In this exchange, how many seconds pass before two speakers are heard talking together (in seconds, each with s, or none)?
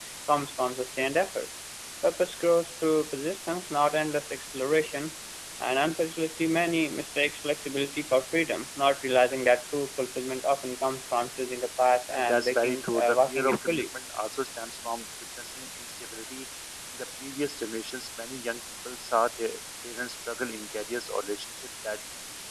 12.1 s